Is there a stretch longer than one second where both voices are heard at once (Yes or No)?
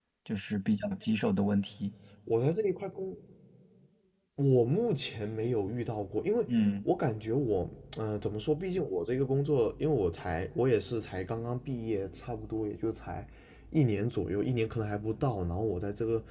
No